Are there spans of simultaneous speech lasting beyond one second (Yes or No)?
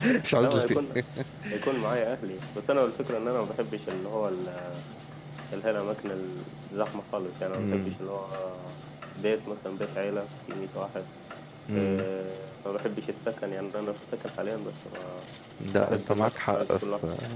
Yes